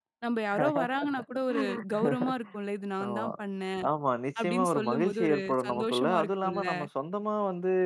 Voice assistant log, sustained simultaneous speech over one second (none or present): present